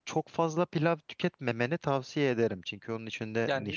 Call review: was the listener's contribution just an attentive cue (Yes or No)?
No